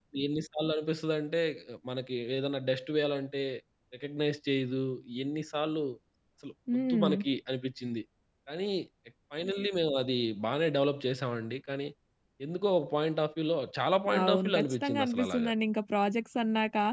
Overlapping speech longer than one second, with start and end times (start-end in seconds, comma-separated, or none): 14.2-15.5